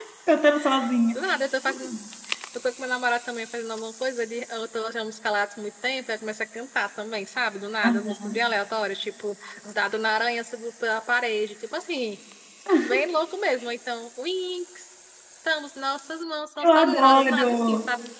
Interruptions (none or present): present